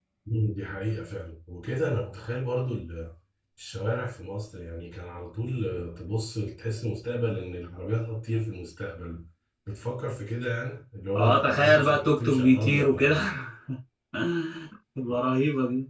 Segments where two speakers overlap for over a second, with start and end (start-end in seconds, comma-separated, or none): 11.2-13.2